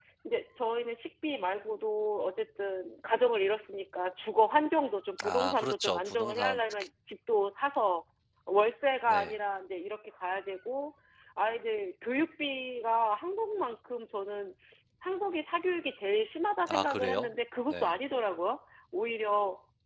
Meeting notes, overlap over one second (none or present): present